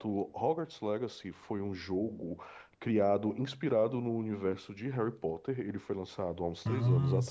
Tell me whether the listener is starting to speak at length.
No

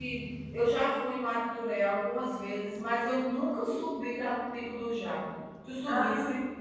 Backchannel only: No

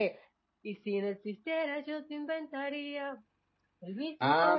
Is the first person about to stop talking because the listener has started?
Yes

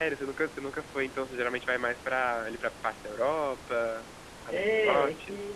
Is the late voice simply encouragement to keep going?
No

